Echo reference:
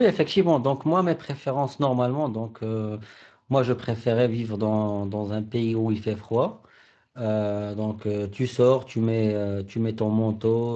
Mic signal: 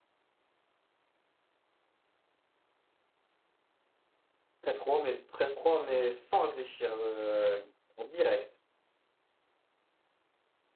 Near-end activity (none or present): present